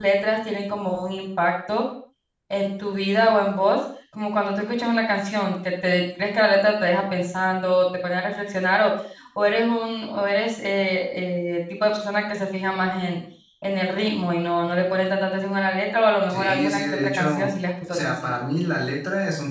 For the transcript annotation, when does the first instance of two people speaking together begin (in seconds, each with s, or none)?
16.3 s